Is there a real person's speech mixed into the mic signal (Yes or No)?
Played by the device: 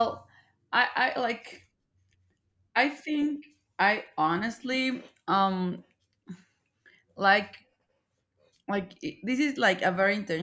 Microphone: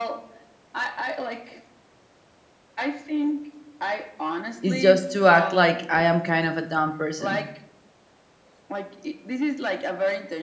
Yes